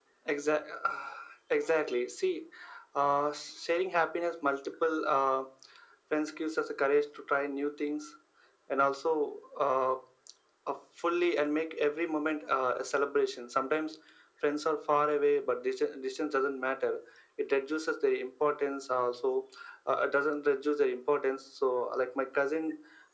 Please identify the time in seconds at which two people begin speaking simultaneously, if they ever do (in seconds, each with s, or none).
none